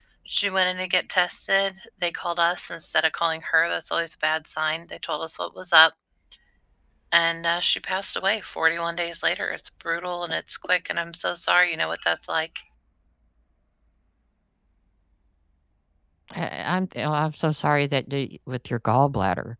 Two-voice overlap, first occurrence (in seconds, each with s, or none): none